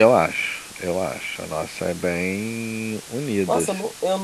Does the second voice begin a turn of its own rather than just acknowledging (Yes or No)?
Yes